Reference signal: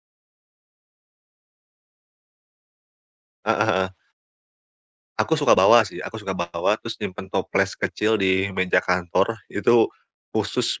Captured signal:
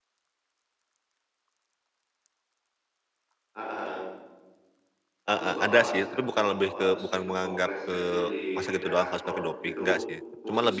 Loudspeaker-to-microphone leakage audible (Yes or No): Yes